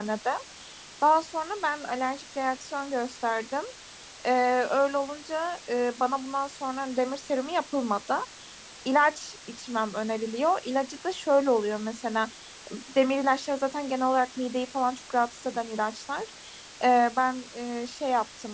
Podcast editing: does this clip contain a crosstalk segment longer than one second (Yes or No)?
No